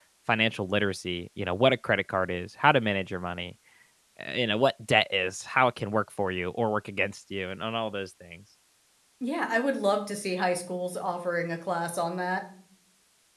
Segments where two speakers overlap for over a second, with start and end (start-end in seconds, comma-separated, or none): none